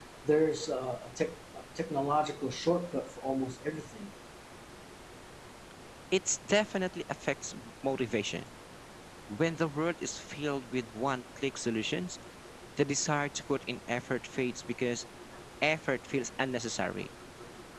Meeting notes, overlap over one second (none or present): none